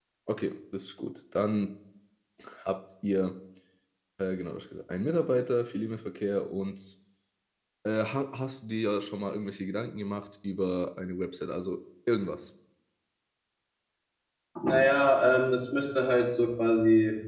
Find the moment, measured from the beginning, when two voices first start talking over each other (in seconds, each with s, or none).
none